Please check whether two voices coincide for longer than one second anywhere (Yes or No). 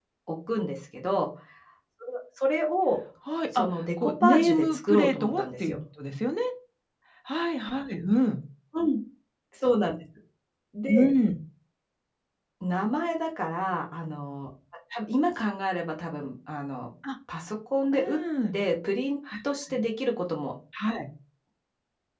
Yes